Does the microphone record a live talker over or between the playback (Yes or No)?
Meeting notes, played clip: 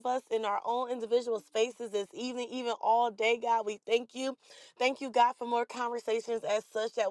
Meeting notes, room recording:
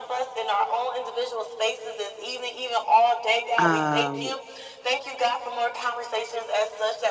Yes